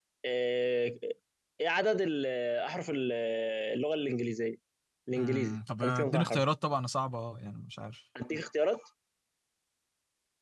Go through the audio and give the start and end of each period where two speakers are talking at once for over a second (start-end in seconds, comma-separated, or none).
5.2-6.4